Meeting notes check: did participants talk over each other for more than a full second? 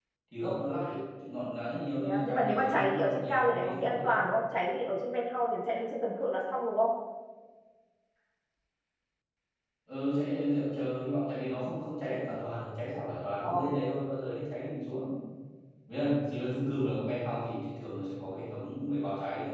Yes, from 2.0 s

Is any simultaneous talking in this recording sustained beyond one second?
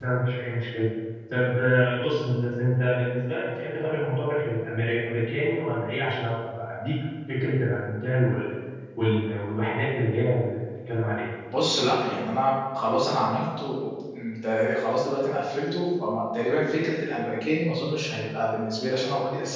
No

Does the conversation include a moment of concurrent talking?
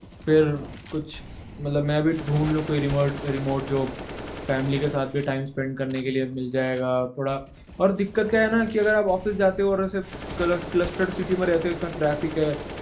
No

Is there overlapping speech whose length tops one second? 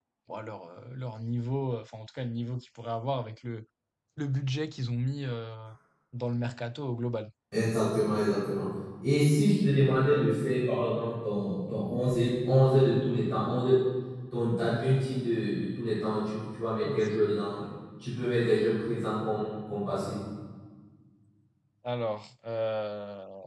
No

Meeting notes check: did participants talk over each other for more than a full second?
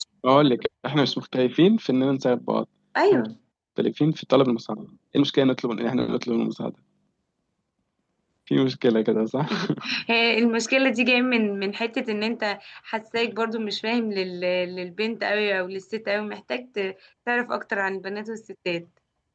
No

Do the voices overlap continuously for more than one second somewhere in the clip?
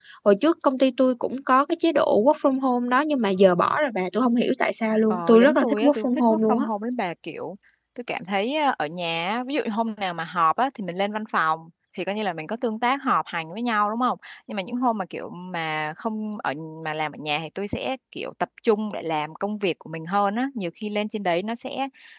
Yes, from 5.1 s

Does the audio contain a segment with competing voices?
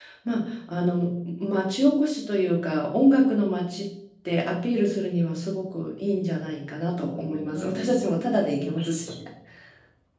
Yes, from 7.1 s

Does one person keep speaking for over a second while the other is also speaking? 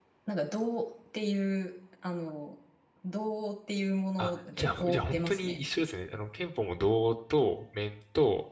Yes, from 4.2 s

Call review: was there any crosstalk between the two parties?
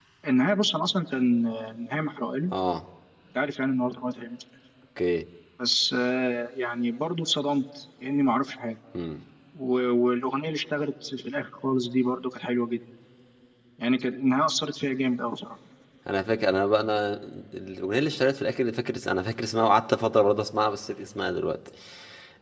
No

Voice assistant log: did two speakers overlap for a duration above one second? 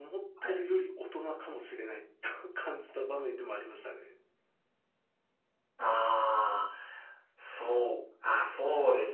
No

